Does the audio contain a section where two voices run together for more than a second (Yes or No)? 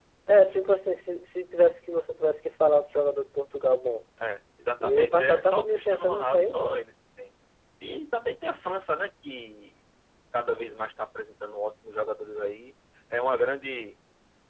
Yes